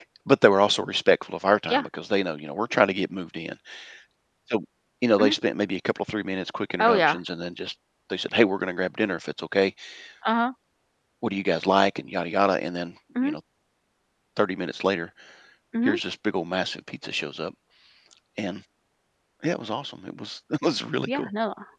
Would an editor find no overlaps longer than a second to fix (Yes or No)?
Yes